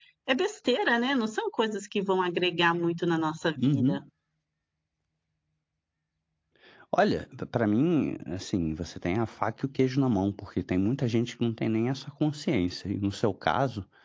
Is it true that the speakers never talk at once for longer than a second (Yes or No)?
Yes